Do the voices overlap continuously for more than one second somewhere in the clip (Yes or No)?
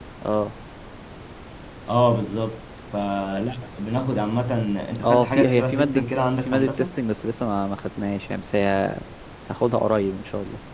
Yes